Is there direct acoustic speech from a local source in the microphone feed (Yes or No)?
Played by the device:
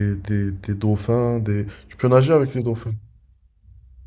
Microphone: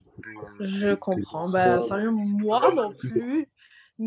Yes